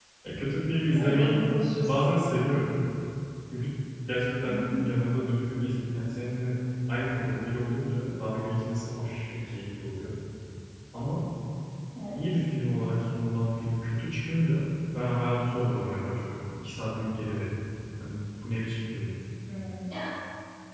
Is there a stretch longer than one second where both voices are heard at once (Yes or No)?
No